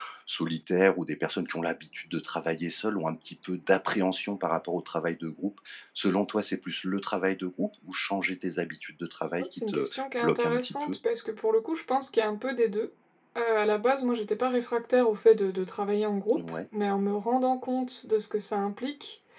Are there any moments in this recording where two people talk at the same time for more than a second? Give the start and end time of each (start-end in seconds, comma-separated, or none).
9.4-11.0